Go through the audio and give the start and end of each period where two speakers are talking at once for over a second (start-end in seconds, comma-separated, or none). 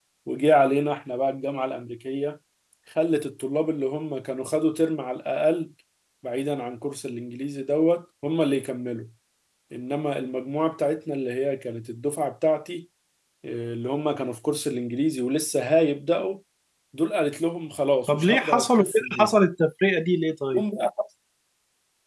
18.1-19.3